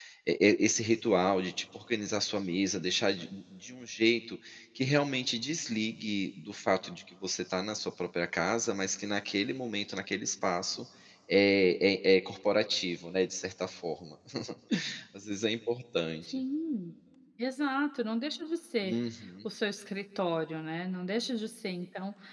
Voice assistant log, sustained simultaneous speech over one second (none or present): none